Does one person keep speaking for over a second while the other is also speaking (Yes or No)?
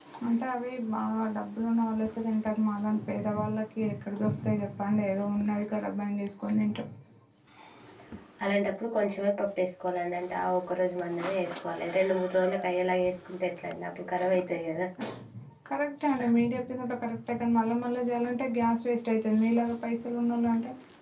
No